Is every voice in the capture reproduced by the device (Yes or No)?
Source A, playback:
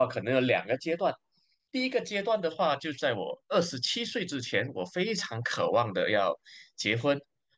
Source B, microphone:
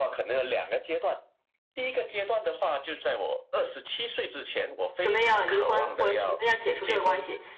No